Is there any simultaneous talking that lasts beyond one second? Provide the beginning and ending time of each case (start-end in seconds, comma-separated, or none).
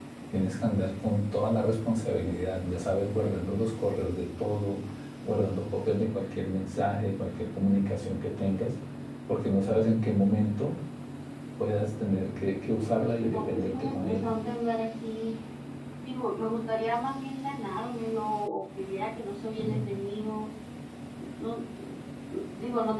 12.8-14.3